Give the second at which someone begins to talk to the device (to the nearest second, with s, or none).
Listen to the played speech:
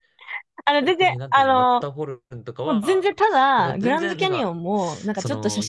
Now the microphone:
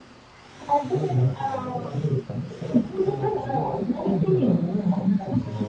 1 s